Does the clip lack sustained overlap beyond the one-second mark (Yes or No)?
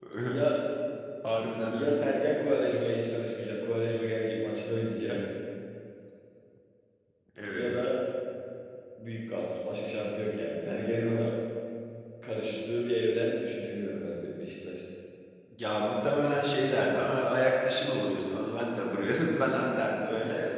Yes